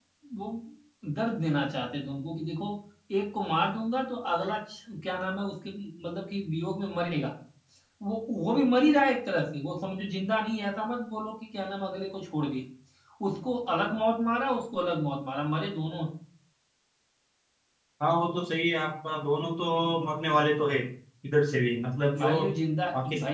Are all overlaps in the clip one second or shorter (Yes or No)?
Yes